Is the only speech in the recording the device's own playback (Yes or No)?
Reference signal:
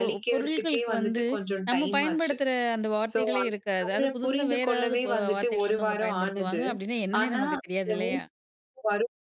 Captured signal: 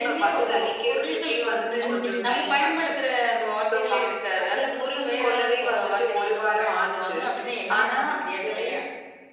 No